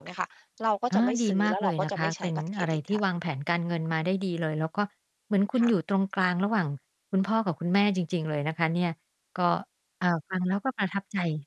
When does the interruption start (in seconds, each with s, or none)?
0.9 s